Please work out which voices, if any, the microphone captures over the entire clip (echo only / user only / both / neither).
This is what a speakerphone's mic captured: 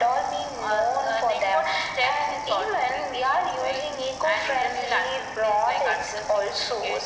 echo only